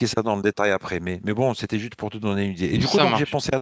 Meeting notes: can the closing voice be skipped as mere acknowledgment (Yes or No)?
Yes